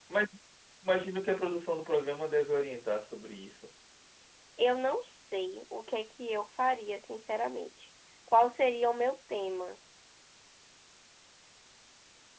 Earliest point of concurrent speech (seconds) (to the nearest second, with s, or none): none